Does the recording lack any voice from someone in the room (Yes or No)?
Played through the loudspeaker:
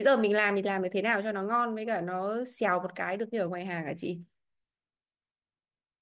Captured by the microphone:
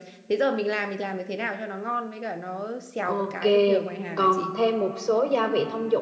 No